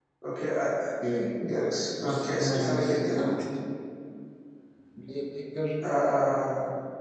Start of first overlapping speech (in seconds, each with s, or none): 2.0 s